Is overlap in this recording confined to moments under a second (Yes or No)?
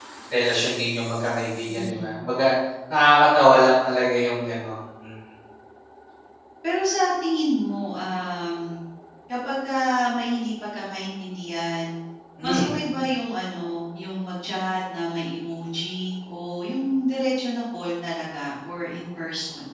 Yes